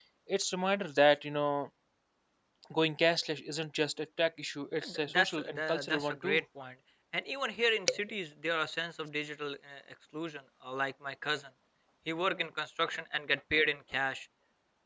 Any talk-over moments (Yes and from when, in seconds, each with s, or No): Yes, from 4.8 s